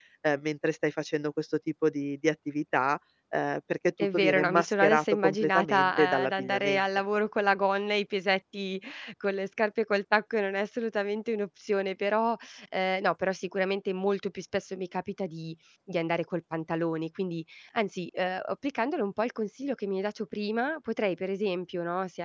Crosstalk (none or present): present